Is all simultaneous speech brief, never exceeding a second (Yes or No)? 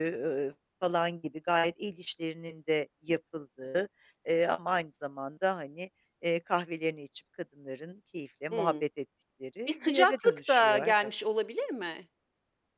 No